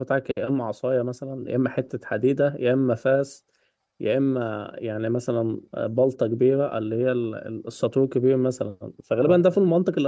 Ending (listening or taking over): listening